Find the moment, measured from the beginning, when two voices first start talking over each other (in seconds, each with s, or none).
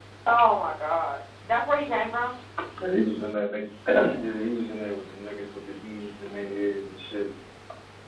none